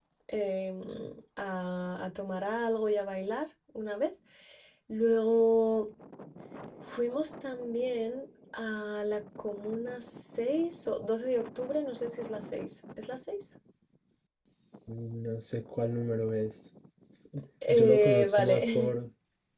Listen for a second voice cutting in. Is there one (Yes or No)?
Yes